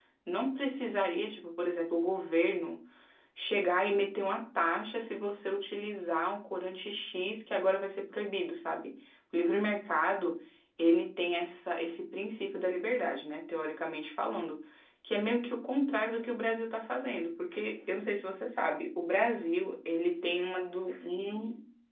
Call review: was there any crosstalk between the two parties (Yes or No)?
No